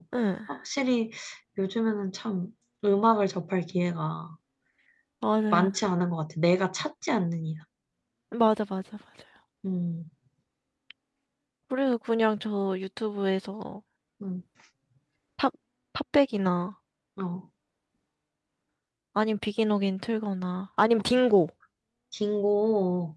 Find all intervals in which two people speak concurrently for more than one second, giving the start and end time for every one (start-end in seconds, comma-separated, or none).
none